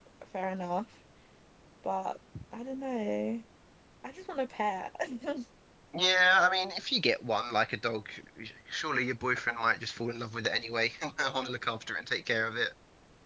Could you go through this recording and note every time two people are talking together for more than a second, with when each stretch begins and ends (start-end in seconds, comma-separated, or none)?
none